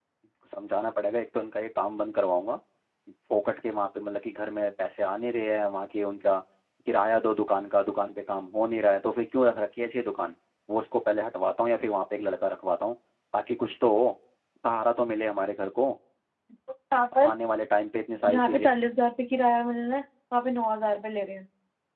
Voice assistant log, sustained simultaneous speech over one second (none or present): none